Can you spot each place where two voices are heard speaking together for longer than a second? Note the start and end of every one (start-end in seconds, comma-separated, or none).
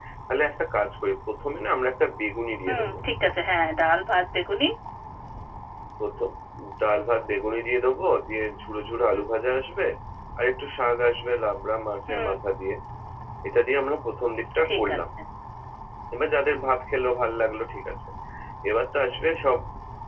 none